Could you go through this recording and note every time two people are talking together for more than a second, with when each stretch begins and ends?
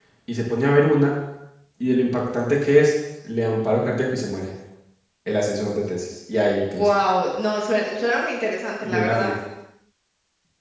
none

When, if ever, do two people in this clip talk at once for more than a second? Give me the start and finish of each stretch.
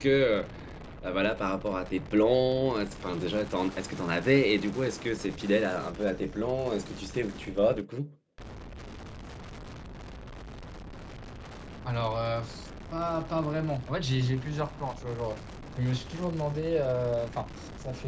none

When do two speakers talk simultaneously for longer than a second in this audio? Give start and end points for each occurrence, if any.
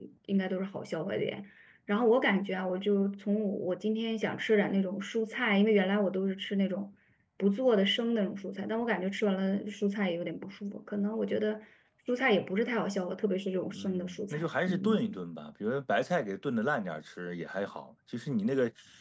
13.7-15.2

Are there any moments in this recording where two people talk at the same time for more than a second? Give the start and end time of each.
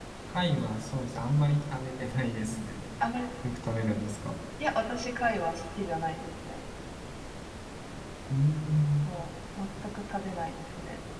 none

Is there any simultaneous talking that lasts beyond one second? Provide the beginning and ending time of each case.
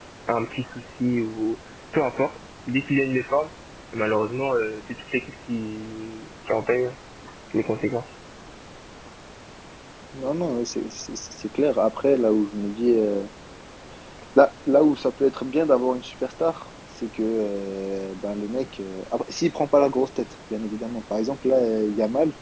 none

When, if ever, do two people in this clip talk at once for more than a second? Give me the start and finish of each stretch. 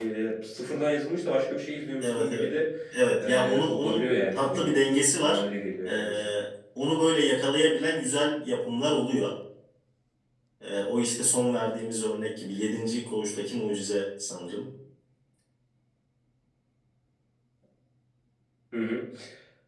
3.2-4.7

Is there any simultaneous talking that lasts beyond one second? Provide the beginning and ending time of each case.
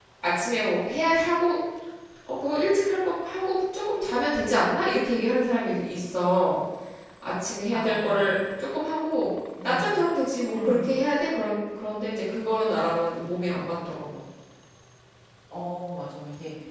none

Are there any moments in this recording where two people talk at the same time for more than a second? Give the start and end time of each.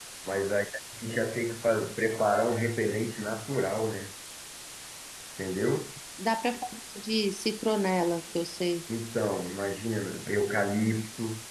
none

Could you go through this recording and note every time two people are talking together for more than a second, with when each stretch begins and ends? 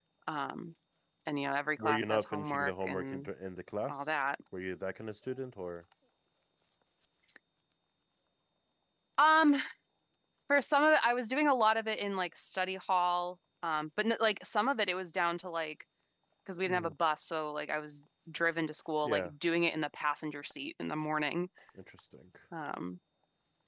1.8-3.3

